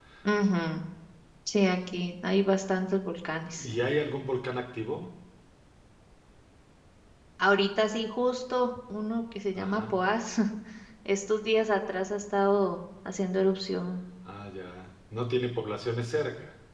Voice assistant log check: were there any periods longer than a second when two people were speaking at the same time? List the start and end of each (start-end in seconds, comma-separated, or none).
none